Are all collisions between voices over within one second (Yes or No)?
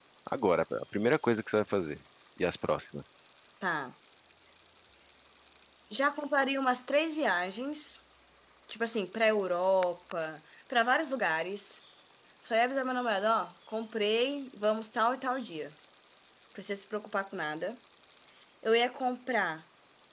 Yes